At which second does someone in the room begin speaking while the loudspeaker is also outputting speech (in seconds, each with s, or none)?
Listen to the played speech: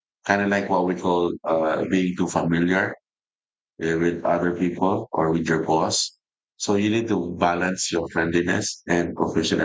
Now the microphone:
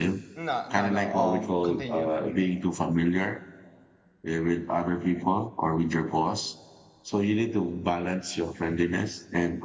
0.3 s